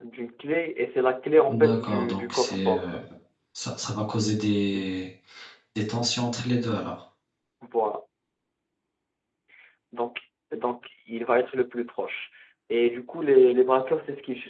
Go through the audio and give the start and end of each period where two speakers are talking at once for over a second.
1.5-2.9

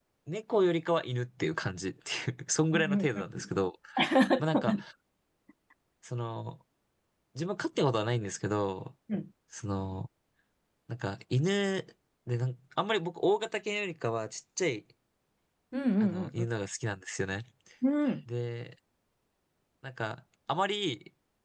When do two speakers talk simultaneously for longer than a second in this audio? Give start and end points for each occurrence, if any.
none

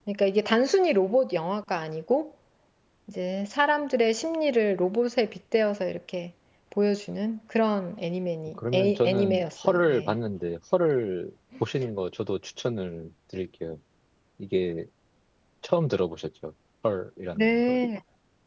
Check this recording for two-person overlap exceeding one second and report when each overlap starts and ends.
8.7-10.1

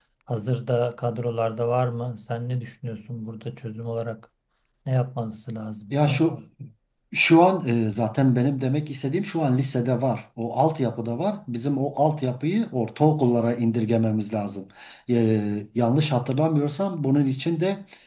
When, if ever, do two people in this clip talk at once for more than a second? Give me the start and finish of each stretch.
none

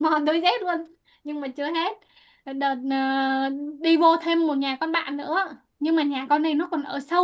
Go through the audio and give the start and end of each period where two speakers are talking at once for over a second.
none

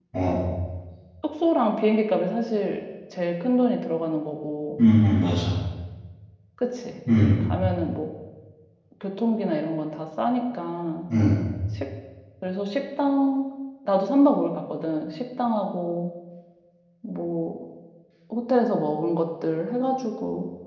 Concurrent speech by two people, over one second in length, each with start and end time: none

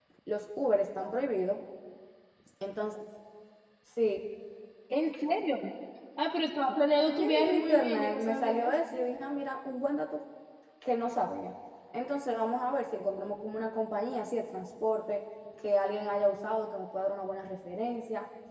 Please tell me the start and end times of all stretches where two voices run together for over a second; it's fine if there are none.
7.1-8.7

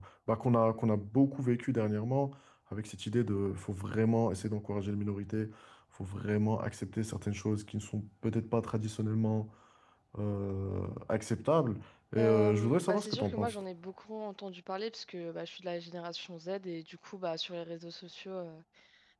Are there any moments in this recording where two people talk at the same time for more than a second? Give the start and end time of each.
12.2-13.6

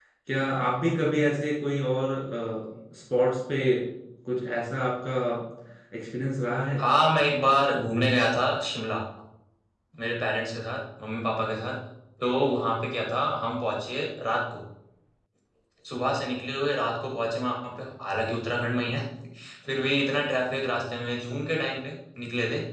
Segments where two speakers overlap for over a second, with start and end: none

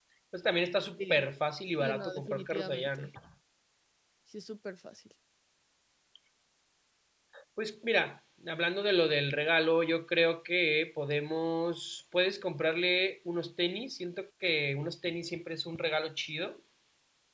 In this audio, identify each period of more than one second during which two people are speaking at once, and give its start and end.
1.8-3.1

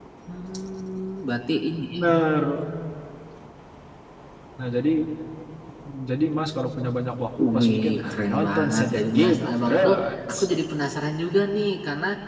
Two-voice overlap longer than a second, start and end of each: 7.6-9.9

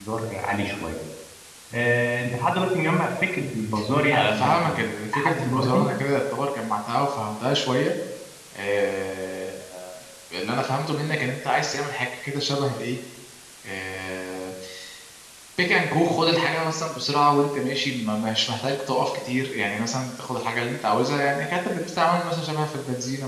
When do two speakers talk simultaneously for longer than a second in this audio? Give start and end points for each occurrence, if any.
4.1-5.8

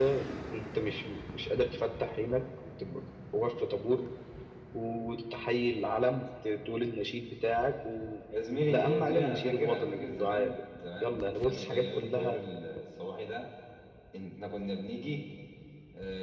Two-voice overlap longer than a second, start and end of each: 8.7-10.5, 11.0-12.4

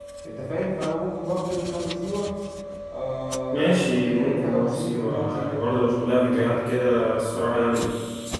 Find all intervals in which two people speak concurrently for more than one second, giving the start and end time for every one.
3.5-5.6

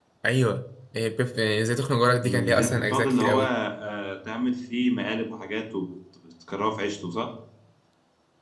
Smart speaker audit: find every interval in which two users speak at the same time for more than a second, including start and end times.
2.2-3.5

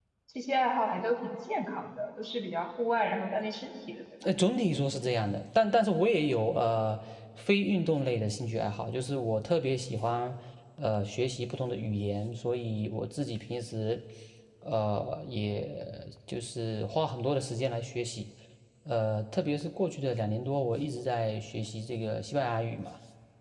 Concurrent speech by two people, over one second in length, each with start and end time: none

